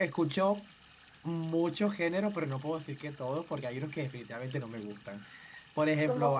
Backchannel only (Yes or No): Yes